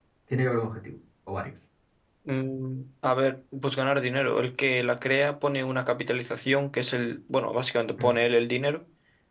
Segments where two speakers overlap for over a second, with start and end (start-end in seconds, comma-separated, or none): none